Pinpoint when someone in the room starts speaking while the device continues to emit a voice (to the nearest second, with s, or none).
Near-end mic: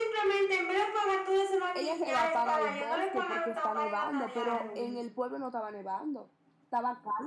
2 s